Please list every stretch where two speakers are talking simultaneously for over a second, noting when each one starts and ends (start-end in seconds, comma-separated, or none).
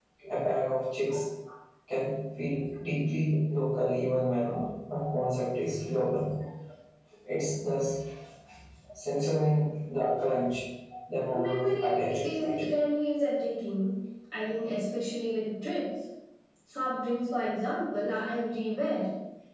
11.3-12.6